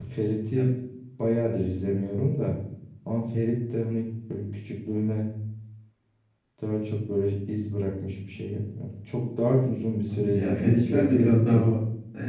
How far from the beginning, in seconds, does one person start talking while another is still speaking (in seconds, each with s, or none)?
10.1 s